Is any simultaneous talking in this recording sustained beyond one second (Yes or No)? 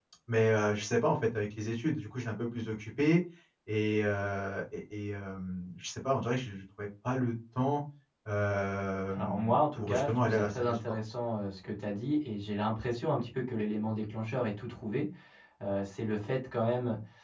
Yes